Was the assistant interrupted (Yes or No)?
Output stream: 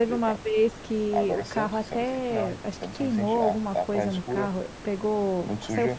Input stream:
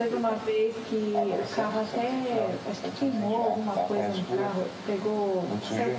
No